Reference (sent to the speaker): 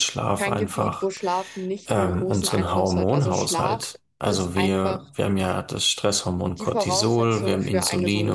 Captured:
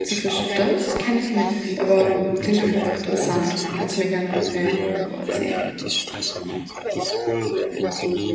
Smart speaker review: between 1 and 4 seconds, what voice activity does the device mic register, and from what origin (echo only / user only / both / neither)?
both